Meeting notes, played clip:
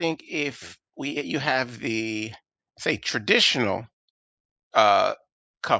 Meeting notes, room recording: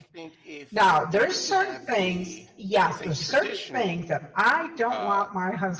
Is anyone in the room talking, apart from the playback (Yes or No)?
Yes